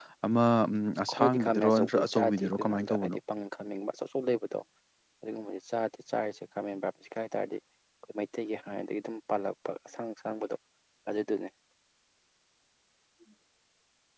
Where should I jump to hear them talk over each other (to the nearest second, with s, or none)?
1 s